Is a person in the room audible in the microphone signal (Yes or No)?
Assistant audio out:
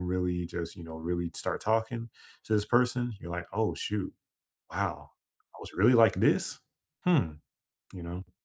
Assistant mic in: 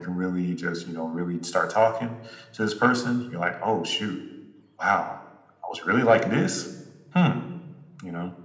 No